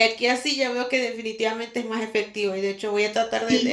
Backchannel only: Yes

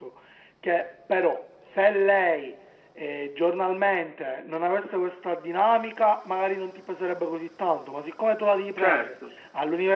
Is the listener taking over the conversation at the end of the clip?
No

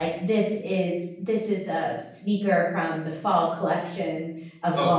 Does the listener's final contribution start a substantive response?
Yes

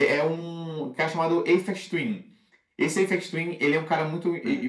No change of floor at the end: Yes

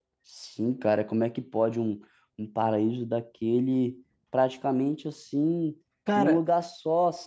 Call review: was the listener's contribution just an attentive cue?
Yes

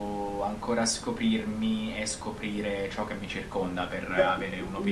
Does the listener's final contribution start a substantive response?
Yes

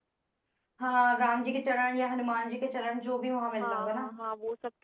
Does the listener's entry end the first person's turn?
Yes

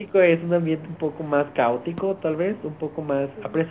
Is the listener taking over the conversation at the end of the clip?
No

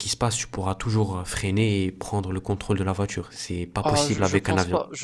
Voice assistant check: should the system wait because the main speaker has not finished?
No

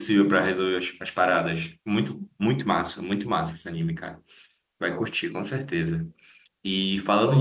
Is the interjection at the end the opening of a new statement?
No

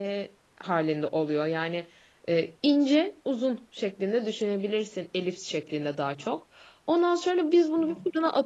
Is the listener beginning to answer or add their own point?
No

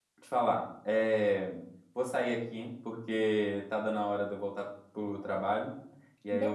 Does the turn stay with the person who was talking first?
Yes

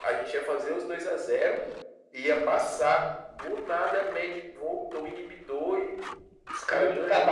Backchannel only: No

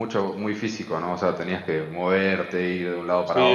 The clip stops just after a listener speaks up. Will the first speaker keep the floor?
No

